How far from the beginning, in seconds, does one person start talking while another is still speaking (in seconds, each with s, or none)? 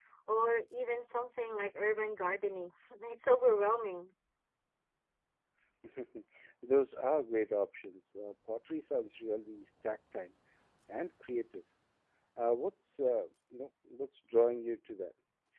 none